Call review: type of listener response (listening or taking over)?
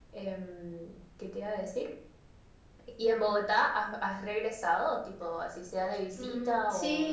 taking over